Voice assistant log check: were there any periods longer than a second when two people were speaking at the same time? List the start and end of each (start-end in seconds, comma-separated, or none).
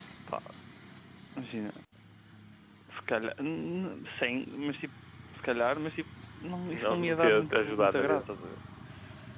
6.7-8.2